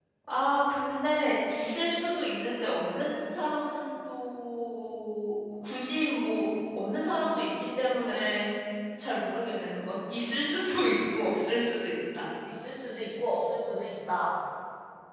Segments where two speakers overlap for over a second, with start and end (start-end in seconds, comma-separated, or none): none